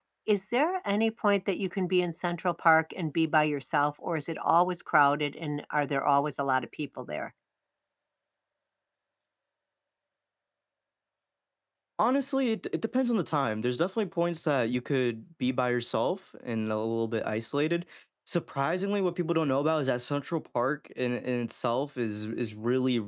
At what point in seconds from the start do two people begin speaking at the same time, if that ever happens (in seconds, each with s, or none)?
none